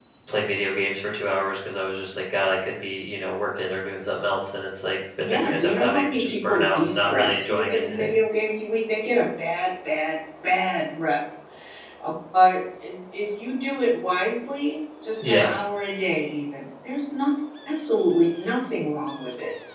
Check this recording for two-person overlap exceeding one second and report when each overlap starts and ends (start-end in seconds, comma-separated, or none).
5.3-8.1